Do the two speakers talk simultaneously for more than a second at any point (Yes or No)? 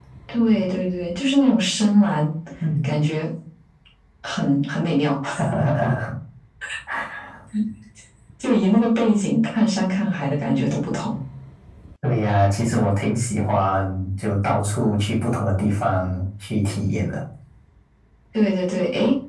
No